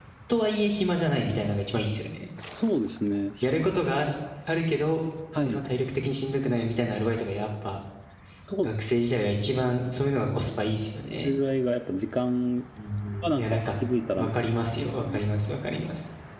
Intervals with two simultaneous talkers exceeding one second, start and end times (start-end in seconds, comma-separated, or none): none